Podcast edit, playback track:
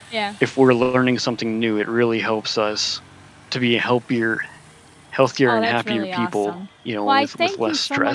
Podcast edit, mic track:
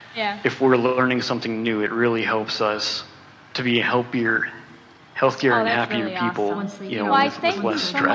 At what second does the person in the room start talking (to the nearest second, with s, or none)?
7 s